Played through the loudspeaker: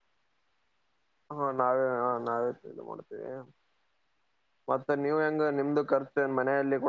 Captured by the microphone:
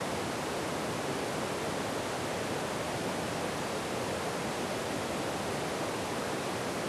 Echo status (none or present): none